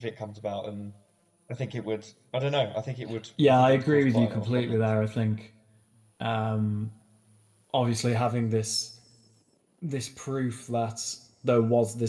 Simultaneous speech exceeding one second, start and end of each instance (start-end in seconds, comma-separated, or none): 3.4-4.8